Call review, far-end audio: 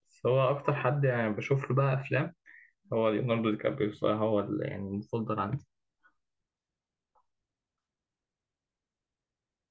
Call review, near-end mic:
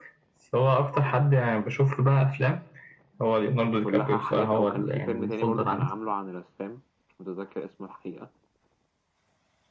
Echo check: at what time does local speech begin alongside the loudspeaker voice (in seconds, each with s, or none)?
3.8 s